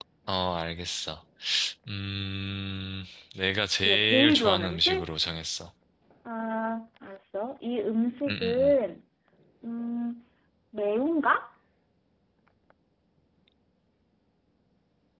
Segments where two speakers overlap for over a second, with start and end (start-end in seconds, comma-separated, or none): 3.8-5.0